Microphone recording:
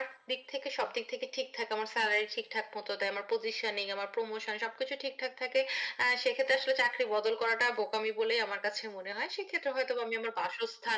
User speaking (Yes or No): No